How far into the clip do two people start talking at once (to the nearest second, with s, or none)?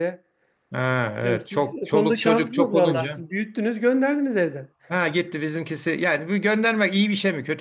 1 s